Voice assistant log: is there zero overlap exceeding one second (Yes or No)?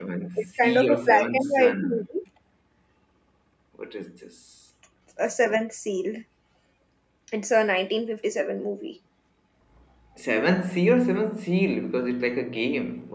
No